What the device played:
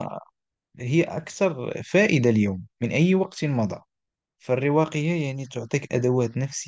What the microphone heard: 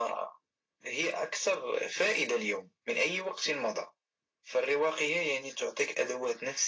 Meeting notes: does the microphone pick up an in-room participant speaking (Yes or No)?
No